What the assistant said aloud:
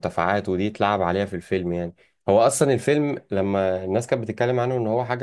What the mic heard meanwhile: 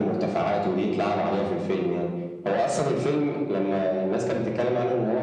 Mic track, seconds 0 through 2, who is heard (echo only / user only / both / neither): echo only